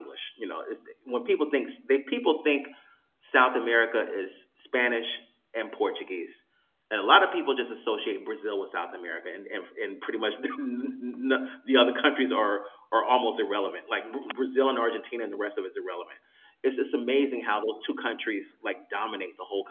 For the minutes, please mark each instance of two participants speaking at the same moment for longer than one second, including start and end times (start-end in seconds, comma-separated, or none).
none